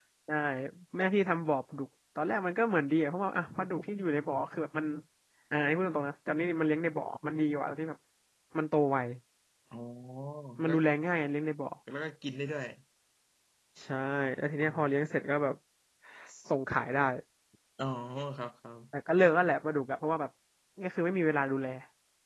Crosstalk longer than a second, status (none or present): none